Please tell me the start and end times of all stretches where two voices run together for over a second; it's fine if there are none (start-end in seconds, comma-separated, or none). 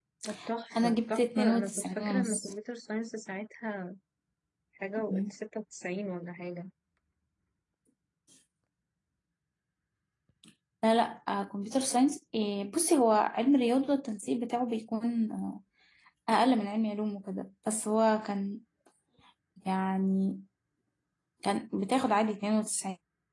0.8-2.5